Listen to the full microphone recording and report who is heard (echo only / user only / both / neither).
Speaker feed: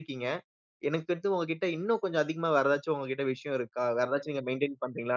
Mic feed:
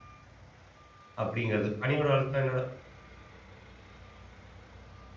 user only